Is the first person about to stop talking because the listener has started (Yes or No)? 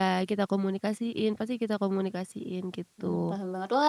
Yes